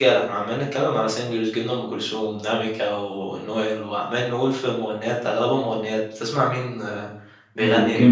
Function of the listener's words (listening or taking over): taking over